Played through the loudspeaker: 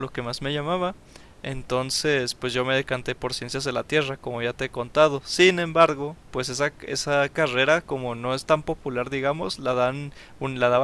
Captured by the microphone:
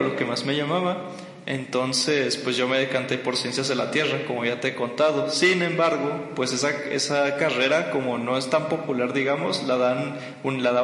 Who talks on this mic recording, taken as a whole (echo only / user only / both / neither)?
echo only